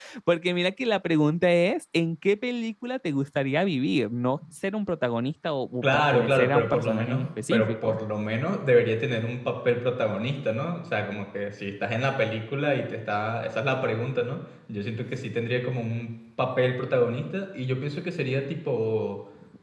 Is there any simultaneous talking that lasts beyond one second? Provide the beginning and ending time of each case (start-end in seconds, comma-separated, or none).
5.8-8.0